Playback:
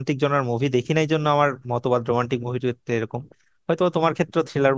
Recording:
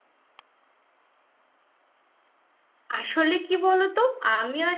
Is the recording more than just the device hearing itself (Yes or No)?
Yes